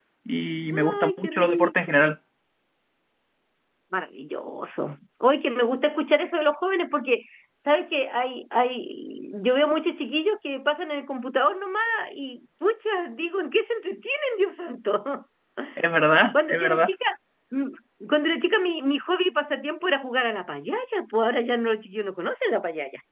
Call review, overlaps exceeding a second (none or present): present